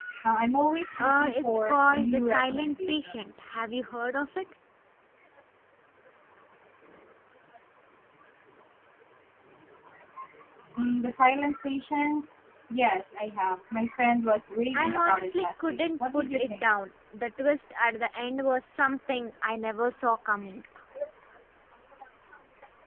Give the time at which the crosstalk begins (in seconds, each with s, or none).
1.0 s